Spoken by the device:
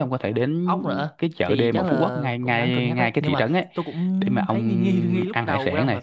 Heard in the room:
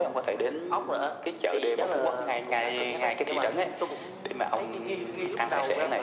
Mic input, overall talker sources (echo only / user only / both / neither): echo only